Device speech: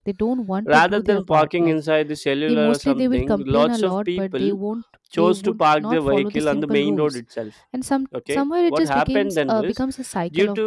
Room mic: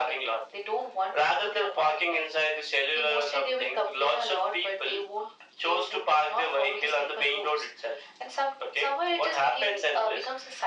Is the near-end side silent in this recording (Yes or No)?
Yes